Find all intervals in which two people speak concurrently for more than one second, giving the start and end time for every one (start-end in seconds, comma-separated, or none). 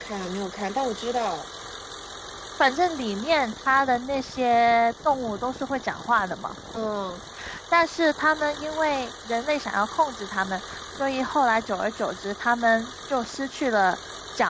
none